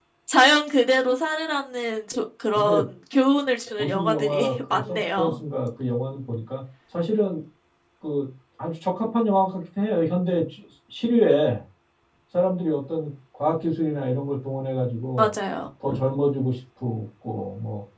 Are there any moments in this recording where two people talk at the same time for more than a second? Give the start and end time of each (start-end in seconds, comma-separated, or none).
3.8-5.3